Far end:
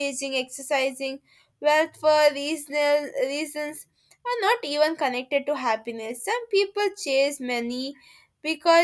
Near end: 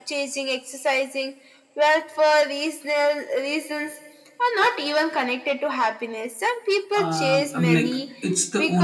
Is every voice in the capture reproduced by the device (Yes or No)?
No